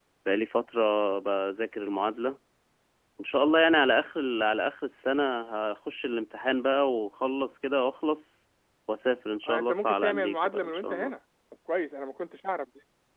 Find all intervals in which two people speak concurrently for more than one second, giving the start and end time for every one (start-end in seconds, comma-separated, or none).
9.5-11.1